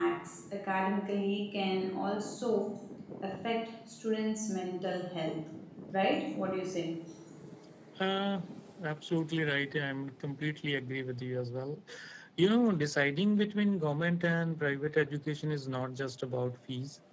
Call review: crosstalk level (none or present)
none